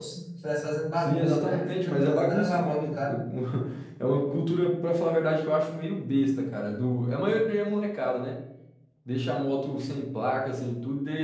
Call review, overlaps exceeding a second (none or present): present